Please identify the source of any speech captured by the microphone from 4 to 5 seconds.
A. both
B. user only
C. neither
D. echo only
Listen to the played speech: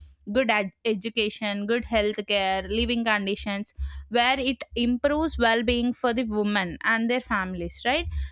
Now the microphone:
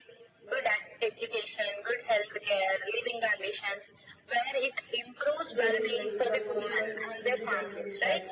D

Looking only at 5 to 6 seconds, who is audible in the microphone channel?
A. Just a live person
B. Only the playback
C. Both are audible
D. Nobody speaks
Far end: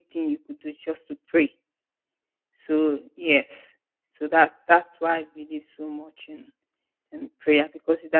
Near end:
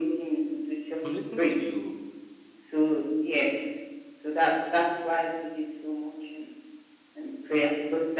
B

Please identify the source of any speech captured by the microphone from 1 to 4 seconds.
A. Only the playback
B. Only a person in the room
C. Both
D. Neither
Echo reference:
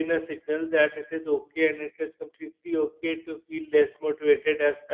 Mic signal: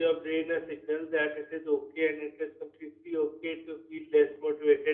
A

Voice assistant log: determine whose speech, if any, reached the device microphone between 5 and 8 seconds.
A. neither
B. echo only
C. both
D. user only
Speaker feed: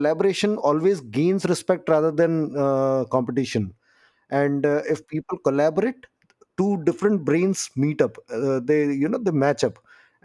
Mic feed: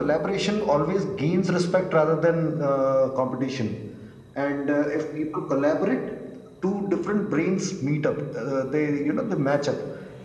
B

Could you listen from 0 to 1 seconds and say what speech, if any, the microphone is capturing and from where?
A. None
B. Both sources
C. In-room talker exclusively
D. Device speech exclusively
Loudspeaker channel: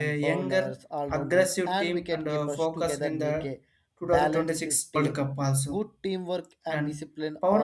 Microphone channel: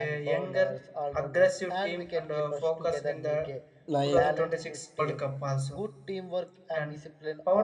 D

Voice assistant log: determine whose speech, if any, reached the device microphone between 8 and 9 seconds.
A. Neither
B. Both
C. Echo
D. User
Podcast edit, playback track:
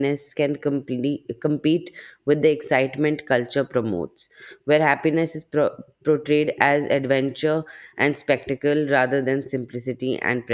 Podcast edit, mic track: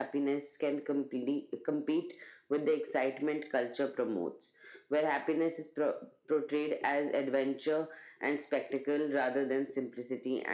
C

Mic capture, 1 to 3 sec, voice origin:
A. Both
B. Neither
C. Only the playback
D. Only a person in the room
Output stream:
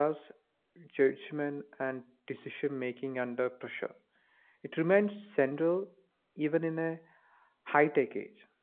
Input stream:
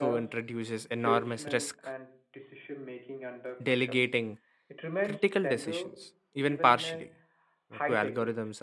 A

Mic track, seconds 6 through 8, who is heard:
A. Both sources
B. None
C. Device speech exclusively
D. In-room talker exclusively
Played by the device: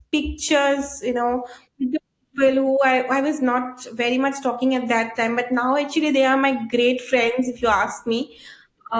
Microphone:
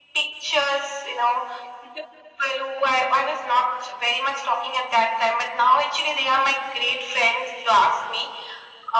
C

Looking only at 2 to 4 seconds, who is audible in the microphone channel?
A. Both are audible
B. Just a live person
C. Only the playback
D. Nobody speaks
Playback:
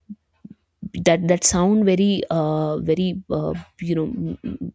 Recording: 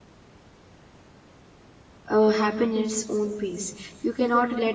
B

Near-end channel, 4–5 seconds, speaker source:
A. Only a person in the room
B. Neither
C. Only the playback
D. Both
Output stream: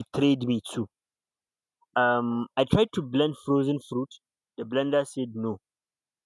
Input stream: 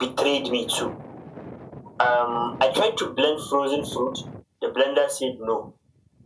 C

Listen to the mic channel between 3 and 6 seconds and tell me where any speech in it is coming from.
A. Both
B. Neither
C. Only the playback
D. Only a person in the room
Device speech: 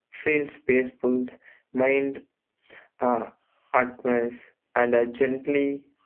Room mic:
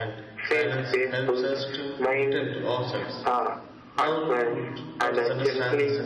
A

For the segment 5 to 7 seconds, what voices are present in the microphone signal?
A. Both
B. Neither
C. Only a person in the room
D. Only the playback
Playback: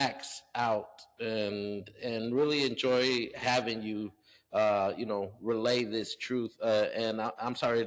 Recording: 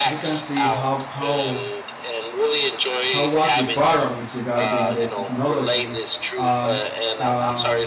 A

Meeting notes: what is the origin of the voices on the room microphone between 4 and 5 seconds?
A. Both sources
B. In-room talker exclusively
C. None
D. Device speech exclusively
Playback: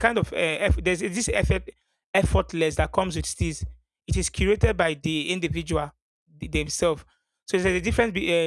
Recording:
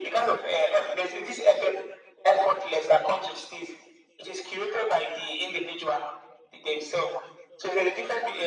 D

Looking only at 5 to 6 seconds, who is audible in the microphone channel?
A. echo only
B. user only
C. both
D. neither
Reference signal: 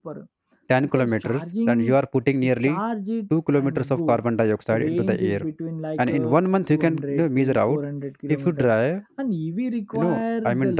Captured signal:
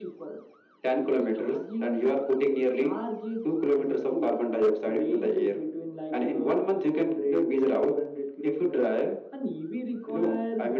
A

